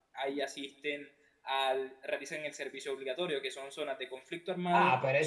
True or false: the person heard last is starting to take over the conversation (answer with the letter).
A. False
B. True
B